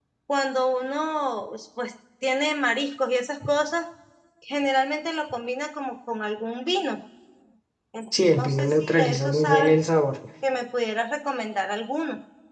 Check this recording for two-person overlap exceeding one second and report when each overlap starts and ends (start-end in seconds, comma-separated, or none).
8.4-9.7